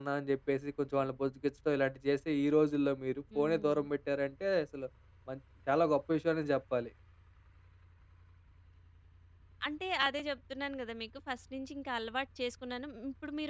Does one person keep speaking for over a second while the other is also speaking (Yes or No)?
No